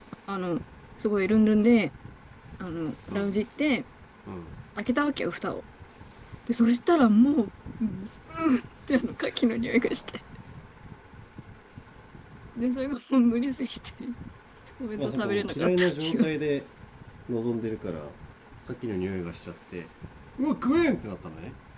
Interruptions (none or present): present